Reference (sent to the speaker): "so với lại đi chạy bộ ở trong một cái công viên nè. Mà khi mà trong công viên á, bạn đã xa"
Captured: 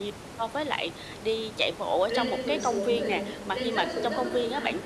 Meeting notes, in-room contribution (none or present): present